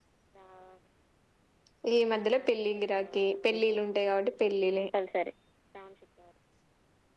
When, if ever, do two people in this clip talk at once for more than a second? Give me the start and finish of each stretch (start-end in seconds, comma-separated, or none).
none